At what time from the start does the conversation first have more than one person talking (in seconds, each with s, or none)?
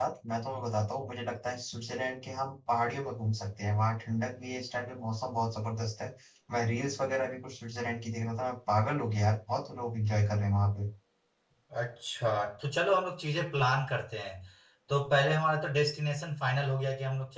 none